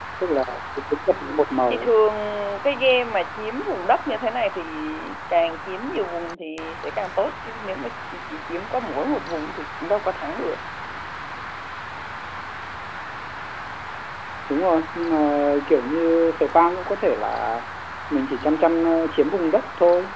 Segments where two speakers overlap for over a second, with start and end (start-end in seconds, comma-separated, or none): none